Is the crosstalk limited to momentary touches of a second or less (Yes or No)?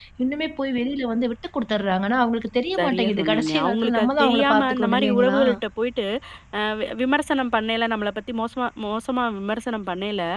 No